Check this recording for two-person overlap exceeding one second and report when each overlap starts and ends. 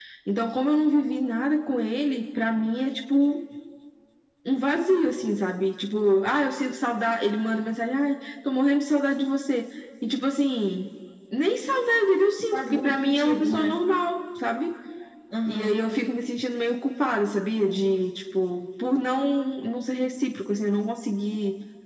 12.5-13.8

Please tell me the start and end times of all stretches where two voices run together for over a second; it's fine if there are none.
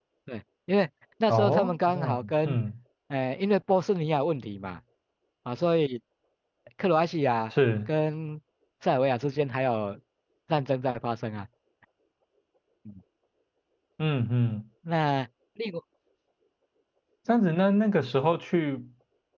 1.3-2.6

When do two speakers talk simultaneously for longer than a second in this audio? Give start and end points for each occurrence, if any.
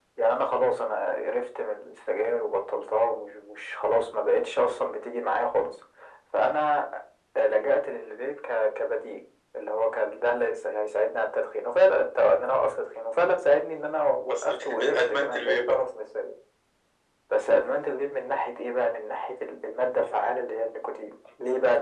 14.3-15.8

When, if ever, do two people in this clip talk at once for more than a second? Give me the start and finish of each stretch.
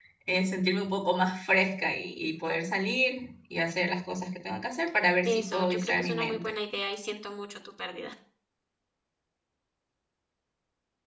5.2-6.5

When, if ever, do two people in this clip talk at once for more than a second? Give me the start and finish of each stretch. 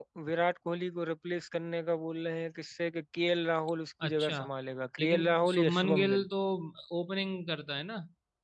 5.0-6.2

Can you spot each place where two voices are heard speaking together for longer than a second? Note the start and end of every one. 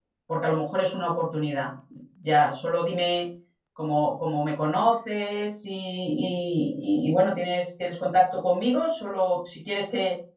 none

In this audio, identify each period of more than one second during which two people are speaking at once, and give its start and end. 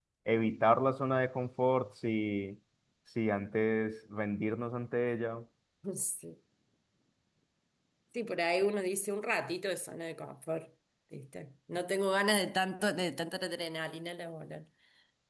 none

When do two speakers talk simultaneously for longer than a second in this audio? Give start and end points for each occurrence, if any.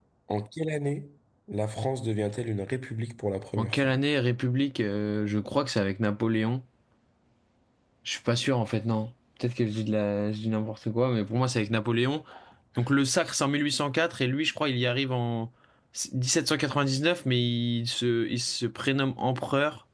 none

